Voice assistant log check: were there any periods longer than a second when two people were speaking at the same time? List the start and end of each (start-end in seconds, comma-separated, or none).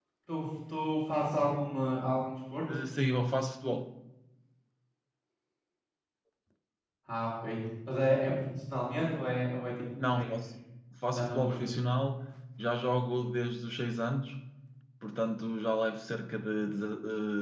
none